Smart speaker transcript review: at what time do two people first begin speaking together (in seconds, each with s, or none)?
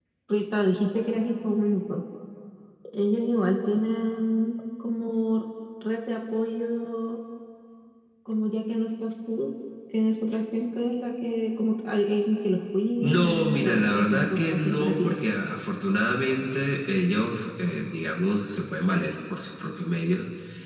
13.0 s